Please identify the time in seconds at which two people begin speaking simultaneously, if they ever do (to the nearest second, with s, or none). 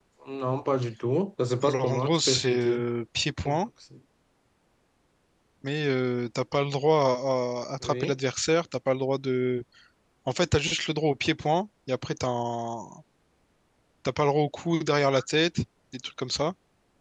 2 s